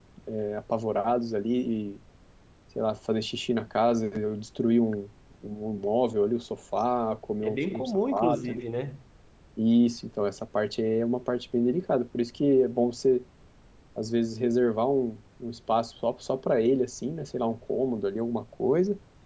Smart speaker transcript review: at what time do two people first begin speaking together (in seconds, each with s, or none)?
7.4 s